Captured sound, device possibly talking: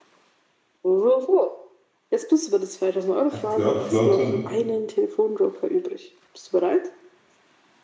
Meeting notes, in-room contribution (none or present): present